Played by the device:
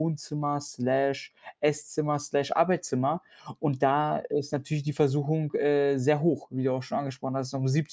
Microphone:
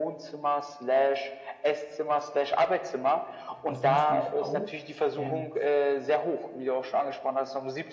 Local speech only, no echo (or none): Das musste ich auch. Ähm,